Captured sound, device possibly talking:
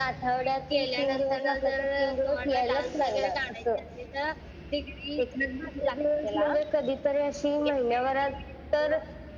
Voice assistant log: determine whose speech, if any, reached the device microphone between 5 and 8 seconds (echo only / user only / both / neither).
both